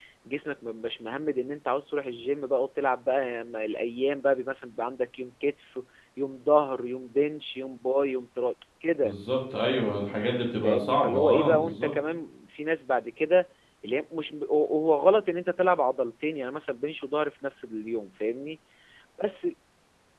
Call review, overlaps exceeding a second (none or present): present